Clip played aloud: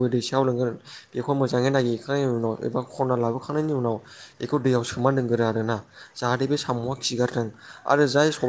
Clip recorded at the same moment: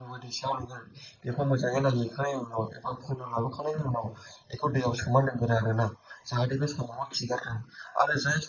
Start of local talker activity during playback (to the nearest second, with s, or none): none